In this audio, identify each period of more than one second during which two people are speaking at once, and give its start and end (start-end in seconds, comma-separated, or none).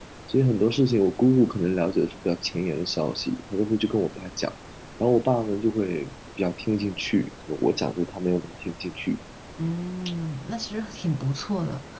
none